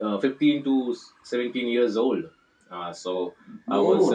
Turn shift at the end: Yes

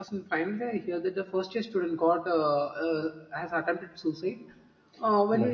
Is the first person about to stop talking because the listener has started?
No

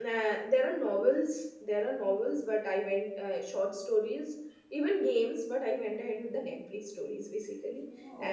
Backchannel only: Yes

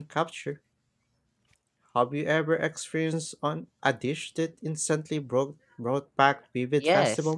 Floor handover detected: Yes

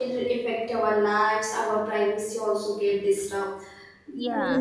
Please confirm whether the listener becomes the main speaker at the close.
No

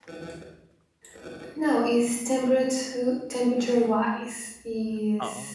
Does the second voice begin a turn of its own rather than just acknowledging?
No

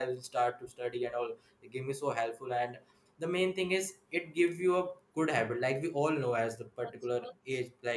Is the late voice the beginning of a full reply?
No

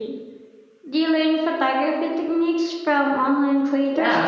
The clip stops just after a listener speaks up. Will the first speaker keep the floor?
No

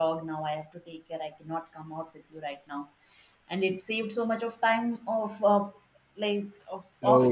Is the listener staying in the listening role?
No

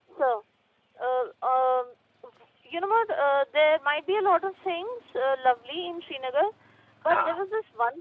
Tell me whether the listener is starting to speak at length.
No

